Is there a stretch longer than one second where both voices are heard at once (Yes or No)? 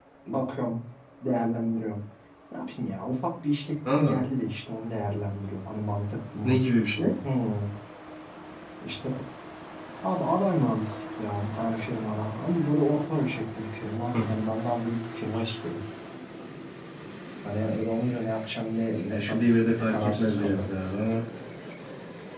Yes